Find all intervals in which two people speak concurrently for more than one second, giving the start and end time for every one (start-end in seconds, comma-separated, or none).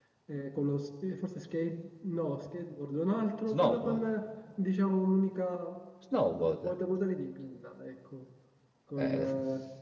none